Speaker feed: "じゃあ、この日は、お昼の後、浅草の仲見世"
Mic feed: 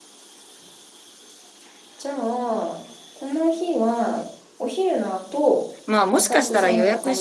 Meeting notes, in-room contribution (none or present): present